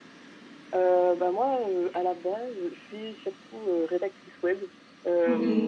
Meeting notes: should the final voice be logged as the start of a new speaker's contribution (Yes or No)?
No